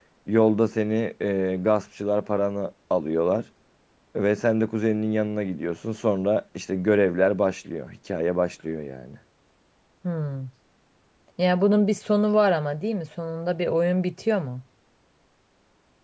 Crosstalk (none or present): none